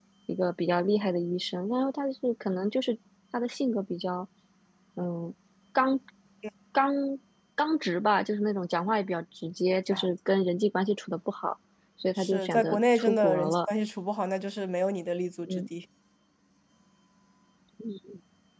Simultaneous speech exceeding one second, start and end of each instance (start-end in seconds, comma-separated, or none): 12.2-13.5